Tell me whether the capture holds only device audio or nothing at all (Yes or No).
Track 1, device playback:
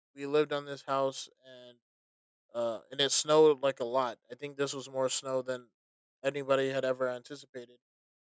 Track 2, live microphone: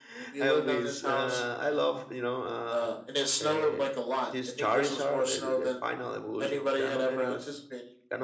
No